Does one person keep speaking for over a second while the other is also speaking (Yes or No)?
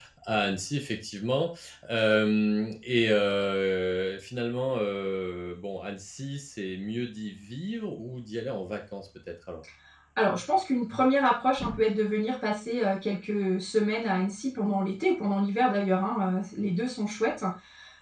No